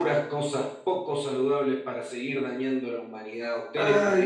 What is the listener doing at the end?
taking over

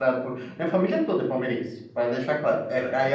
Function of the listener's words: listening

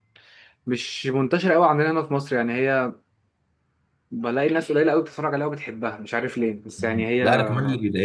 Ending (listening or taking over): taking over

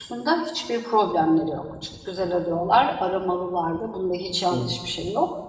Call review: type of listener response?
listening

